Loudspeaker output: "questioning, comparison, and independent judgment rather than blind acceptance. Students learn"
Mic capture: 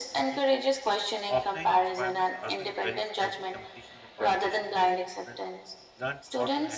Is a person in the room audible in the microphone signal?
Yes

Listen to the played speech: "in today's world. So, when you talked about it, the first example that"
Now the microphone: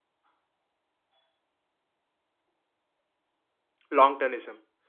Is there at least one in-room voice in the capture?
Yes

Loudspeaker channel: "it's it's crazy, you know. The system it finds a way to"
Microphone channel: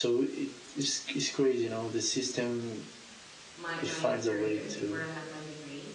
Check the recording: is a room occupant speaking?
Yes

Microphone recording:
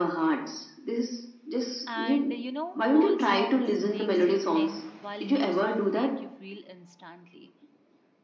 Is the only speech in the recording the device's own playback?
No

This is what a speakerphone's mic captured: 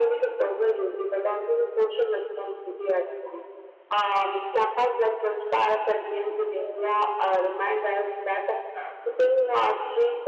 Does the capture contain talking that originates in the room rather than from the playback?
No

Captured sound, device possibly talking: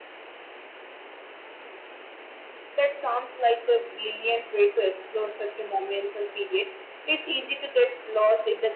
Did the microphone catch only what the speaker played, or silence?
Yes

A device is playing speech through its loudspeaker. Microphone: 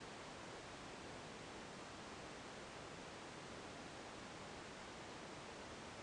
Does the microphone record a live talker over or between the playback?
No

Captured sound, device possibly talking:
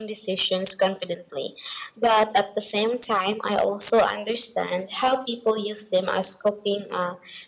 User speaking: No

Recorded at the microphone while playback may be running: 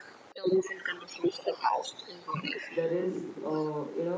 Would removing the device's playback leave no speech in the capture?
No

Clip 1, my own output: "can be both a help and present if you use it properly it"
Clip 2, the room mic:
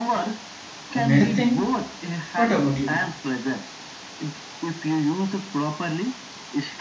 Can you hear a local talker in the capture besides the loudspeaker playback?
Yes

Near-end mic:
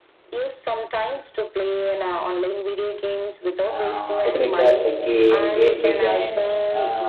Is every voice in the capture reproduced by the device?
No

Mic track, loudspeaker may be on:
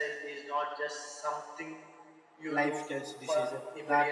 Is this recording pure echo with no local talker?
No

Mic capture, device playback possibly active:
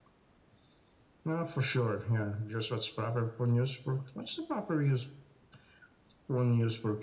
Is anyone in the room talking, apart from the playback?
No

